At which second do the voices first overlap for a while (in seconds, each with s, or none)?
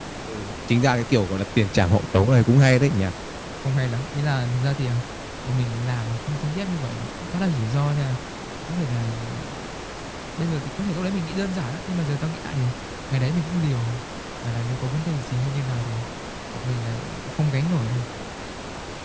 none